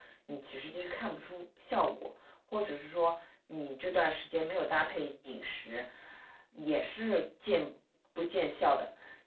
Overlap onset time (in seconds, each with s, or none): none